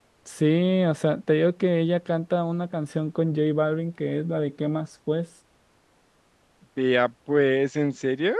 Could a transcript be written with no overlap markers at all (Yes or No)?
Yes